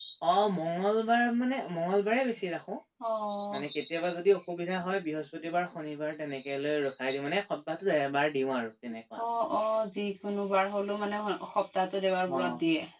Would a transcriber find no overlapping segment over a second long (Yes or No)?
Yes